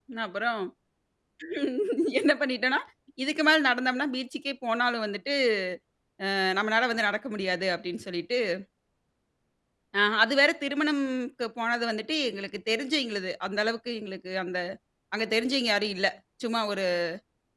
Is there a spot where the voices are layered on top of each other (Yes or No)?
No